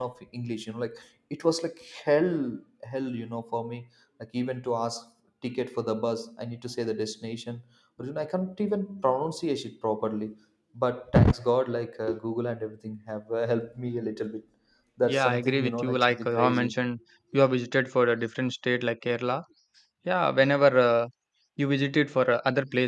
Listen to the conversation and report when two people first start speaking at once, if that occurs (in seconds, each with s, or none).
15.1 s